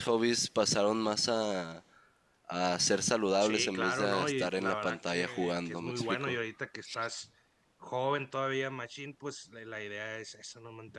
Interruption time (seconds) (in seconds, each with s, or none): 3.4 s